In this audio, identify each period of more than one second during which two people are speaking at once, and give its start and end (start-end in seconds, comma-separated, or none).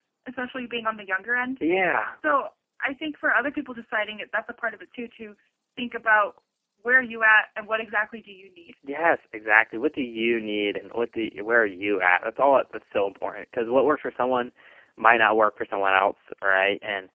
none